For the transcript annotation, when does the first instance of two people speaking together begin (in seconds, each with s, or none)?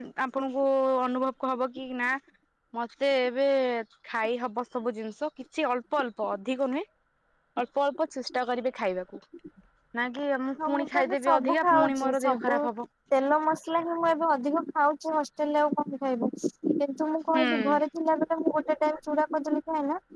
10.7 s